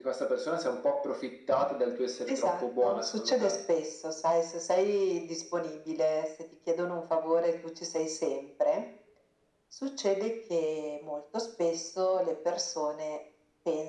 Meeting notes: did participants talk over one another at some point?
Yes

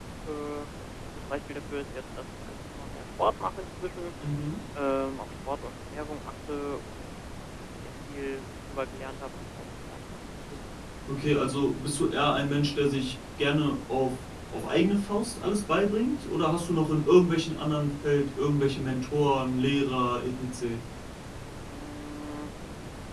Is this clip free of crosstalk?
Yes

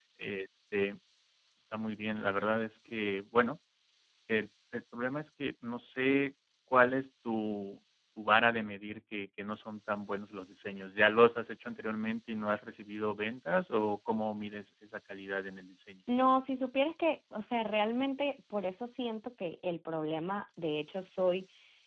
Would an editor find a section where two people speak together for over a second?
No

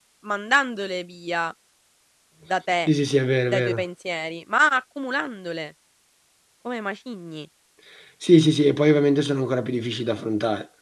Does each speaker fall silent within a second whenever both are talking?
Yes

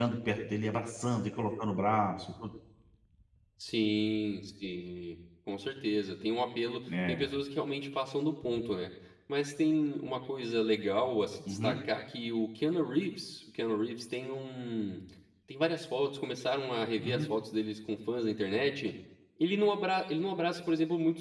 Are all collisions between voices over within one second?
Yes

